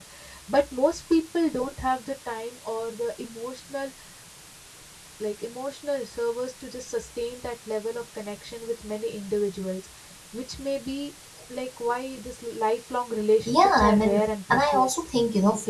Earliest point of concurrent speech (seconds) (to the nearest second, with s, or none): 13 s